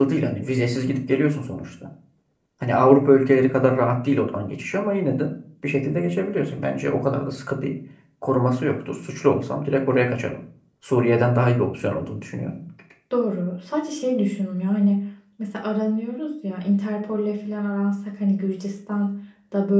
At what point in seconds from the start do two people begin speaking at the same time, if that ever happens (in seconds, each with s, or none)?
none